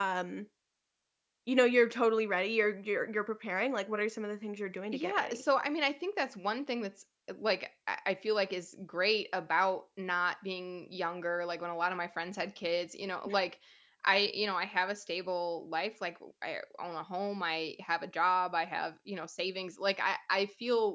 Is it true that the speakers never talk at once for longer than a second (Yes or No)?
Yes